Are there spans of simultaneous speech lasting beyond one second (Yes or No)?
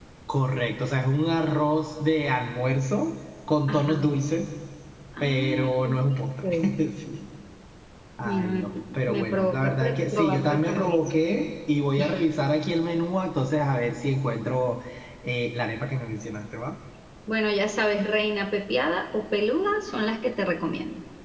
Yes